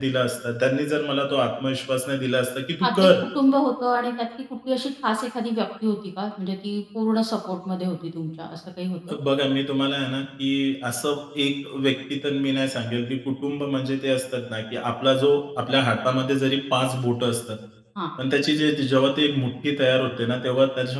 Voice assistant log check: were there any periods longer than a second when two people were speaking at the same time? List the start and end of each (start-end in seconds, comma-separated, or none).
none